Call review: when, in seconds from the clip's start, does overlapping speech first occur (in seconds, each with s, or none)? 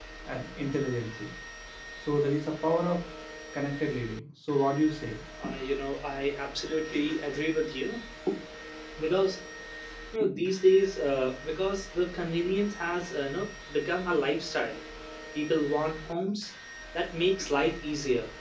none